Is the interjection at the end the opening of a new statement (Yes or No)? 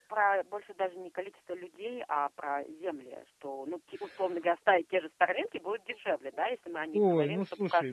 Yes